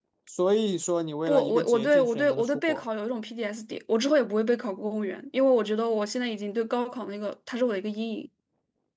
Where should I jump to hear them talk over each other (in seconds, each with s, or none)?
1.3 s